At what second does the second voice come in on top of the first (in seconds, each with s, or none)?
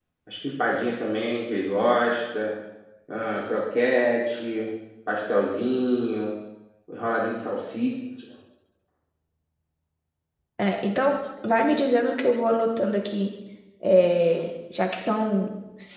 none